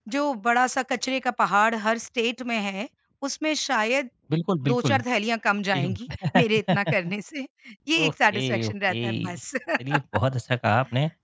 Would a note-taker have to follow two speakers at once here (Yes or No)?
Yes